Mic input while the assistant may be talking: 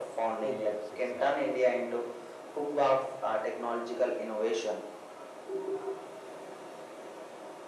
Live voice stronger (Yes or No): No